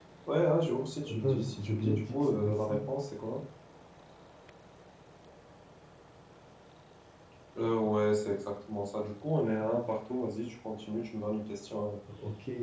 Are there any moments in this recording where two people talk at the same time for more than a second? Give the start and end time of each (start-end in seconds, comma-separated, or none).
1.1-2.8